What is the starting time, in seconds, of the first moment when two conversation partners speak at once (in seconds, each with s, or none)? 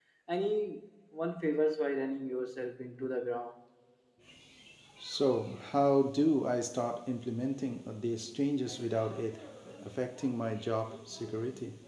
none